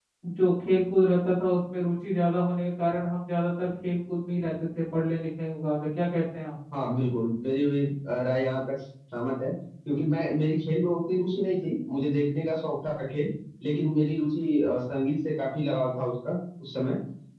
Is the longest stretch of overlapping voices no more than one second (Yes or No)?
Yes